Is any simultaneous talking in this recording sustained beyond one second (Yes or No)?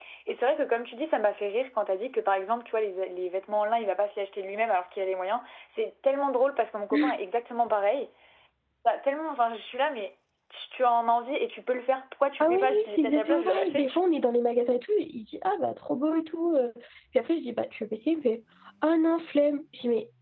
Yes